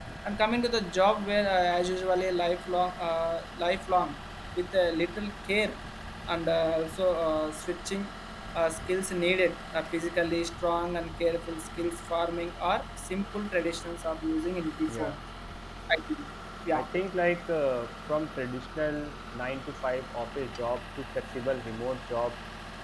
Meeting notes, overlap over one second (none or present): none